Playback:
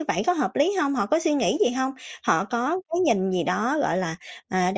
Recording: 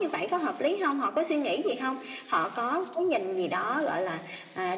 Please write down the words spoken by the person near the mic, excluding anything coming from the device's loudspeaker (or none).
none